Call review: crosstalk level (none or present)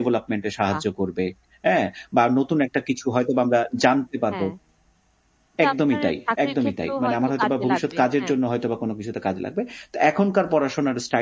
present